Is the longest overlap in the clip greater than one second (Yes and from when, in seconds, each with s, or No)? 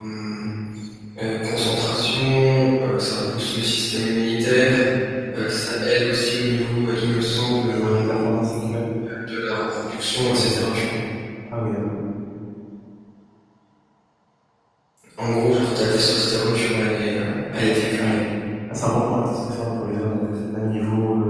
No